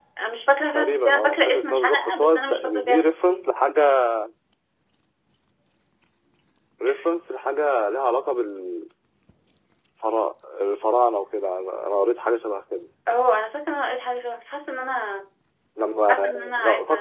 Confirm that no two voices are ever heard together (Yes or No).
No